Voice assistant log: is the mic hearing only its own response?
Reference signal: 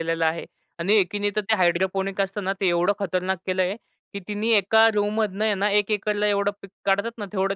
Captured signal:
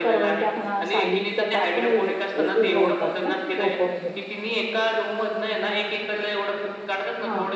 No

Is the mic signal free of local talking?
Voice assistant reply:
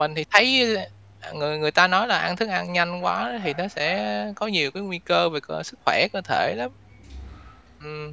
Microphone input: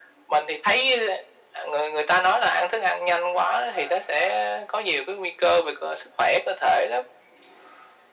Yes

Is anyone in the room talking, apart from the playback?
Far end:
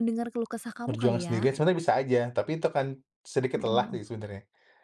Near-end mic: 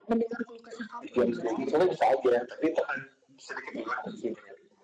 No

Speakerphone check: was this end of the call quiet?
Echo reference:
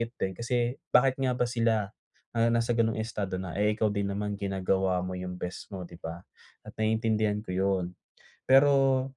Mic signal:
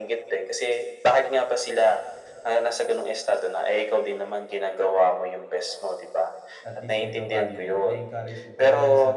No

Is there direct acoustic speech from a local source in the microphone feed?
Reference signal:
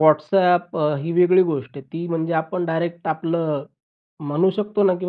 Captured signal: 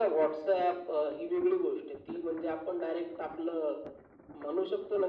No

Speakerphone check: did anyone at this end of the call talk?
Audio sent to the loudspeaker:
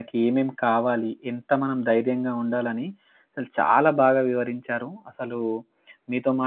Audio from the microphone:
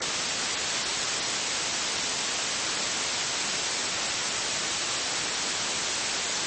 No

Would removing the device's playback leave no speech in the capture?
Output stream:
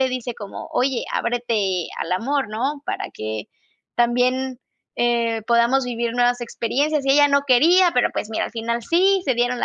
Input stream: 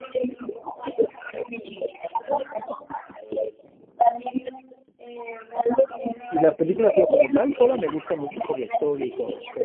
No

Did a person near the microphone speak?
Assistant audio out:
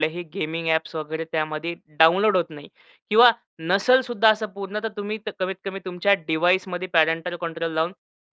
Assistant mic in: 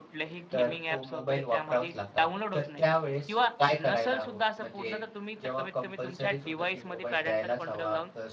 Yes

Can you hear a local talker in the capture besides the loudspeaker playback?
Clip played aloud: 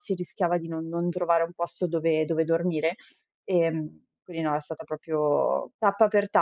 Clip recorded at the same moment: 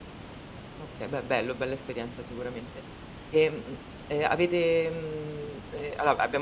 Yes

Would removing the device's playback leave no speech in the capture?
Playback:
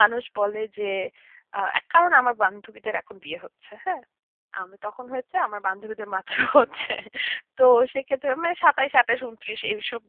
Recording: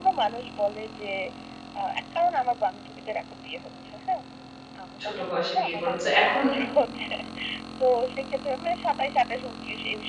No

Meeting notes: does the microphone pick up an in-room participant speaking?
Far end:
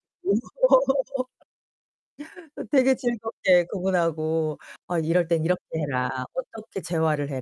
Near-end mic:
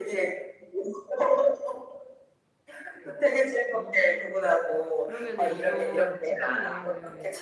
Yes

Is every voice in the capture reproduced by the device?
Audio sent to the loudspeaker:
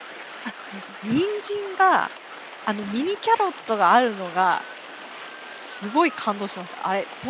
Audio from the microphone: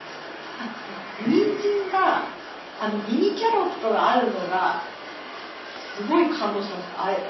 Yes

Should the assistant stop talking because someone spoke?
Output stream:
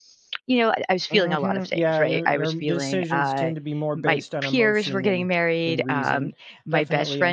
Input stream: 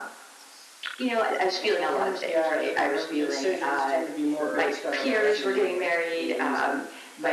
Yes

